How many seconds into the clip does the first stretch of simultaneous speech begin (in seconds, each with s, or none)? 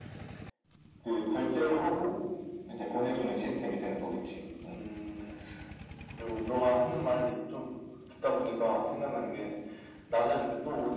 none